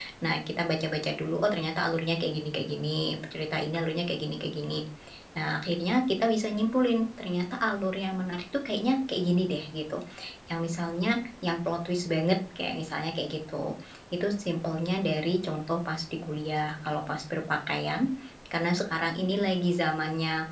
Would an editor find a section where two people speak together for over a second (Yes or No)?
No